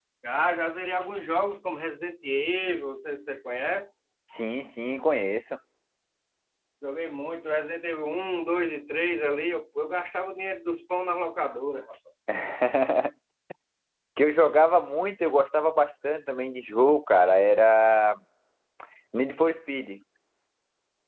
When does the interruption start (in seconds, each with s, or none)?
none